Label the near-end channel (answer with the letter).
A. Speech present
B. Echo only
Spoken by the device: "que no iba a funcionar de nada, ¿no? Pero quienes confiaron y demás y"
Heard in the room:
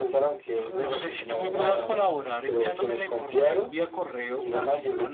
A